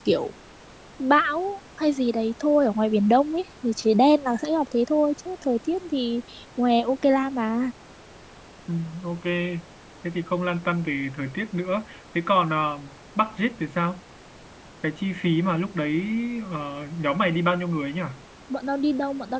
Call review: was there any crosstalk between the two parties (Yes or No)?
No